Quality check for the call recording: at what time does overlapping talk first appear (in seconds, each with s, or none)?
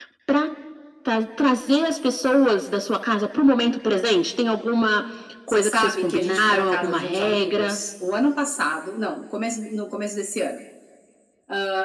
5.5 s